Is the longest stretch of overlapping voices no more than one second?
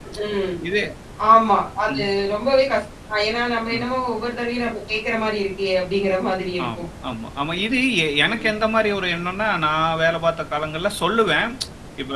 Yes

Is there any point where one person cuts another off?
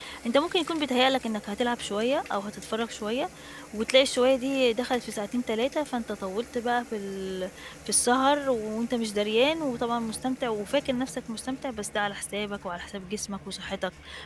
No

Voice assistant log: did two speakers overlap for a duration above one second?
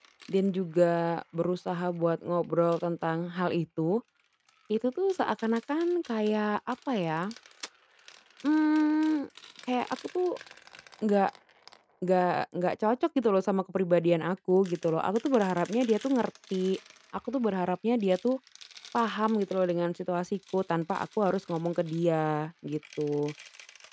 No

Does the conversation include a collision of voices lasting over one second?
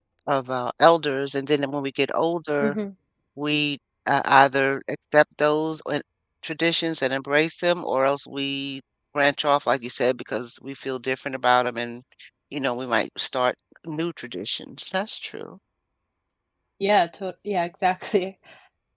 No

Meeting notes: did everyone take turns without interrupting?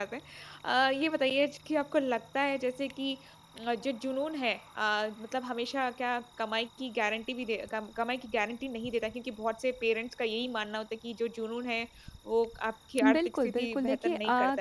No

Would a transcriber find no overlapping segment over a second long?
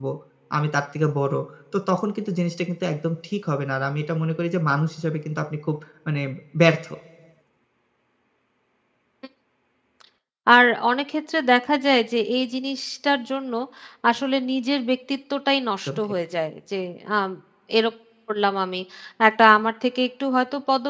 Yes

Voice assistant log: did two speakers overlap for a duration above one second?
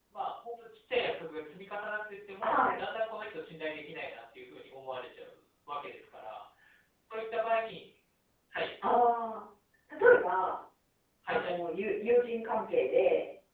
No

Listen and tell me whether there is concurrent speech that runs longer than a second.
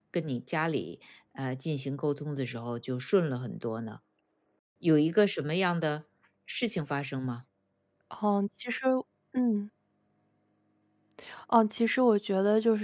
No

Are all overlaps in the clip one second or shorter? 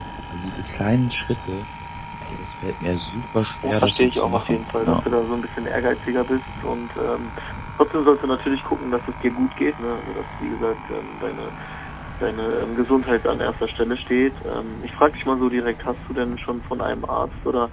No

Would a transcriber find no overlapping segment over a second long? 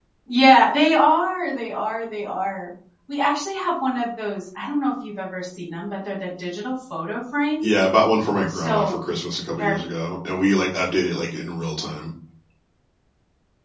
Yes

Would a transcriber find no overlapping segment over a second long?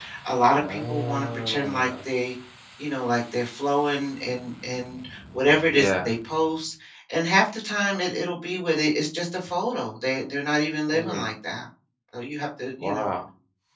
No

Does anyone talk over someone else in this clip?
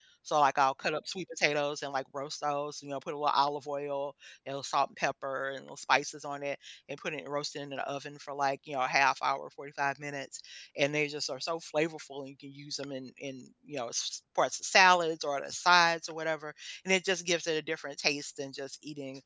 No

